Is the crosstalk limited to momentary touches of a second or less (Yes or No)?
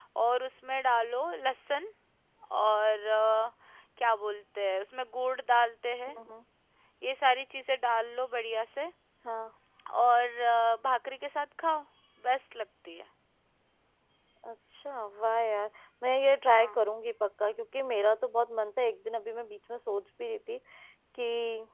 Yes